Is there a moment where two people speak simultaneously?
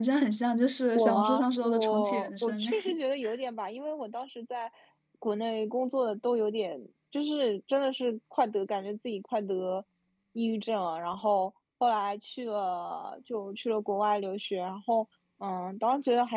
Yes, from 0.9 s

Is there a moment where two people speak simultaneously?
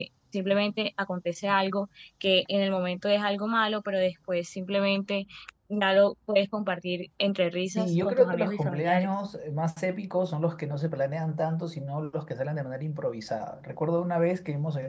Yes, from 7.8 s

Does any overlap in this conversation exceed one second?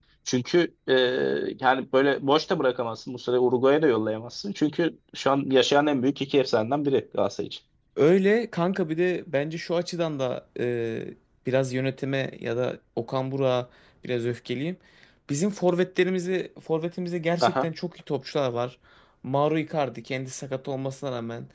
No

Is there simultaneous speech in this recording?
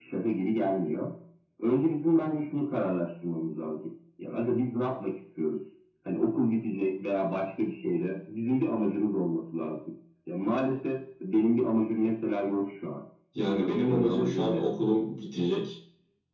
Yes, from 13.4 s

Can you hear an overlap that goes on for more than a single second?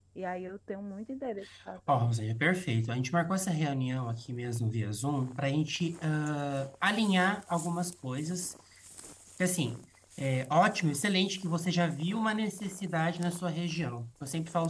No

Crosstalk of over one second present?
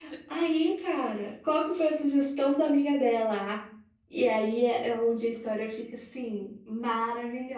No

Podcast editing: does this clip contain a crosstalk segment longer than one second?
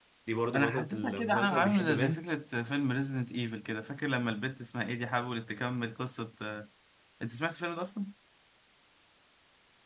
Yes, from 0.5 s

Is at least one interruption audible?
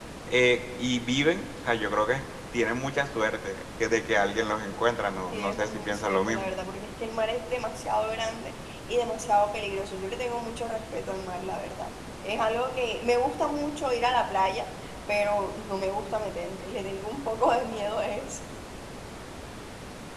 Yes, from 5.3 s

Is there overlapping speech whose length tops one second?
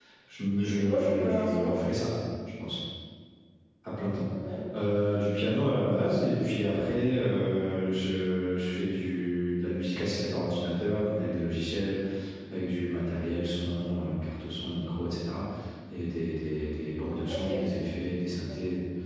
Yes, from 0.6 s

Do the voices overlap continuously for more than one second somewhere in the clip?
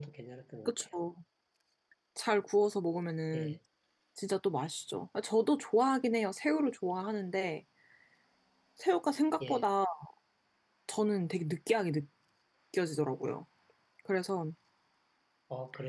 No

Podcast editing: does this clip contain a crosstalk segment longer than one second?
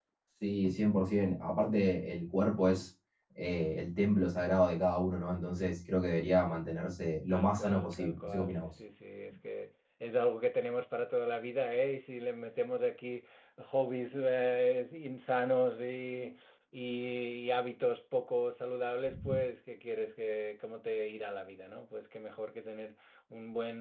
Yes, from 7.3 s

